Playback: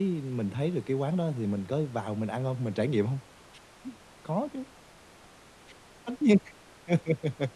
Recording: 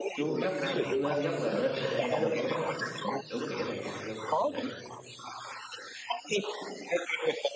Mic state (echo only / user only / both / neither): both